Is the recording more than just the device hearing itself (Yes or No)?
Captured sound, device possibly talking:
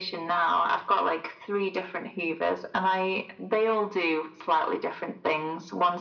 No